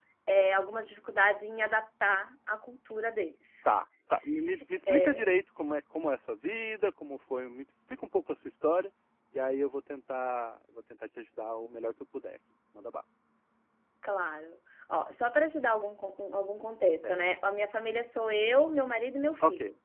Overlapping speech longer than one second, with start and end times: none

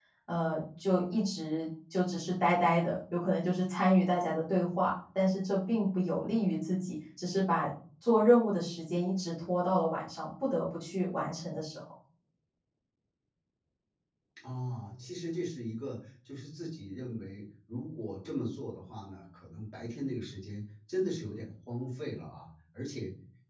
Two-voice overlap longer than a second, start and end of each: none

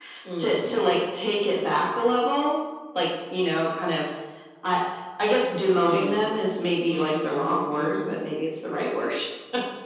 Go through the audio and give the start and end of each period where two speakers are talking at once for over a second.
6.9-8.1

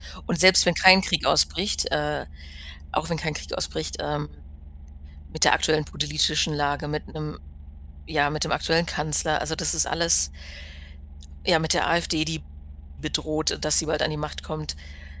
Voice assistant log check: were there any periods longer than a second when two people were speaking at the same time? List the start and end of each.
none

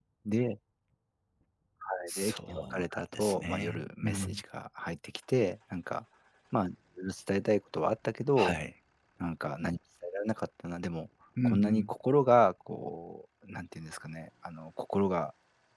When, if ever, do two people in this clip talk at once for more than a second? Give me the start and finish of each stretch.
2.1-4.4

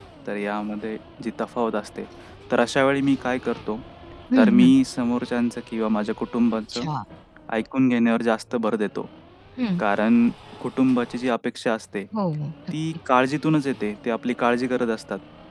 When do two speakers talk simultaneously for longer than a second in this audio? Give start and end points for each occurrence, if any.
none

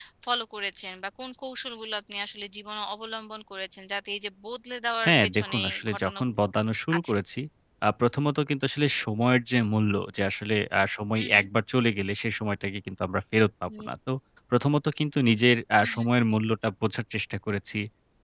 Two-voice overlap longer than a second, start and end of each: 5.0-6.4

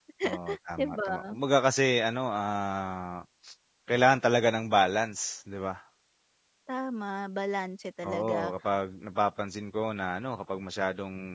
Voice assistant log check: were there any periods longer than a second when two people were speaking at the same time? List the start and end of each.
none

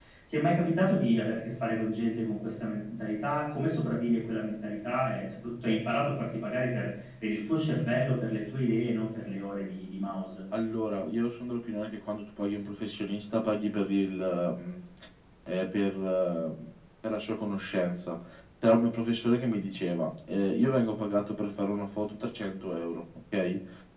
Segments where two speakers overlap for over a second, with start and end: none

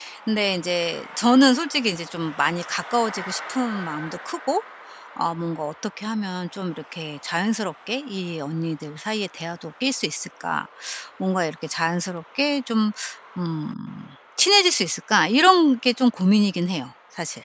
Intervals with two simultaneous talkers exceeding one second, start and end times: none

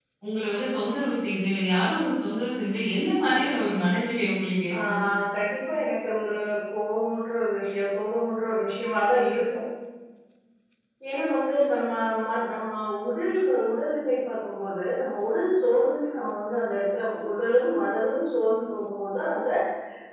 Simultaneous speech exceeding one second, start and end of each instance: none

